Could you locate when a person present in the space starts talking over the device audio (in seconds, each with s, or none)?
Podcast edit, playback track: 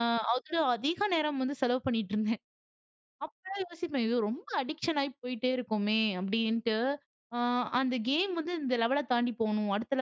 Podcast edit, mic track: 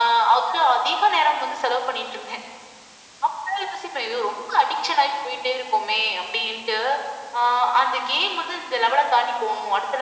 none